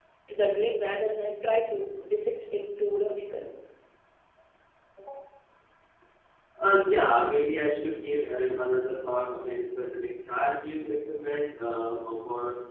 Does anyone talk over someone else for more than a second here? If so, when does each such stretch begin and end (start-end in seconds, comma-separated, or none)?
none